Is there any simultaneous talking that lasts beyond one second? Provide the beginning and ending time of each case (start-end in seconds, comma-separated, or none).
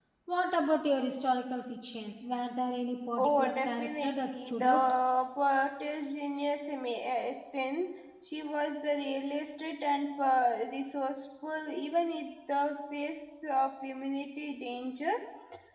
3.2-4.8